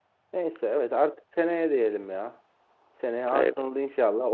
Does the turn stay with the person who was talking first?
Yes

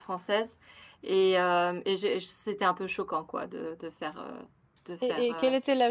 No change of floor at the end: No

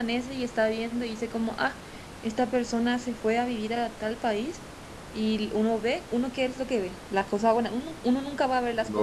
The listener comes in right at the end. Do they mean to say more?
Yes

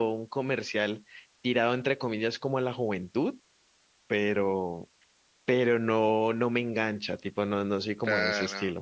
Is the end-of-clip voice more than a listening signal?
Yes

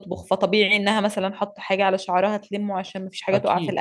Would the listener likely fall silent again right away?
Yes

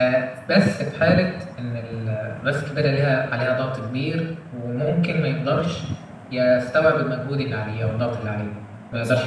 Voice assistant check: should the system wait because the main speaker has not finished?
No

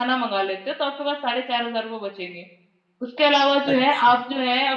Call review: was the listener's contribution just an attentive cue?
Yes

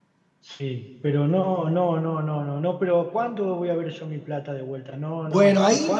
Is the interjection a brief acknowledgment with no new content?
No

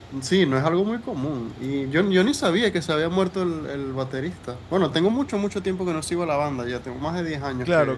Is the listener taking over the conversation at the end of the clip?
Yes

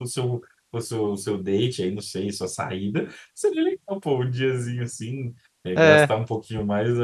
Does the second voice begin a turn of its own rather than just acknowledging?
No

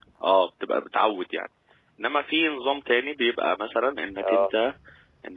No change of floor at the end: Yes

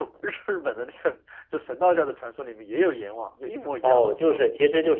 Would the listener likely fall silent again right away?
No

